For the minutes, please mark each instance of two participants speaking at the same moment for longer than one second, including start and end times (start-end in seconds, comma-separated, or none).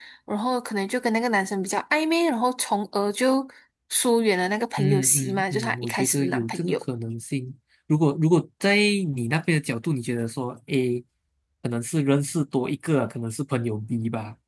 4.8-6.8